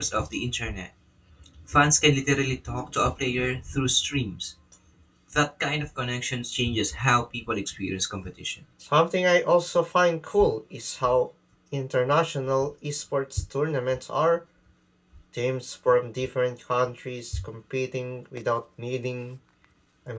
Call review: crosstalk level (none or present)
none